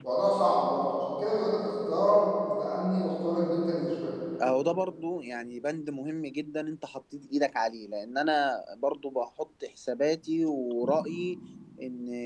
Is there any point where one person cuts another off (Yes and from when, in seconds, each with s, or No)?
No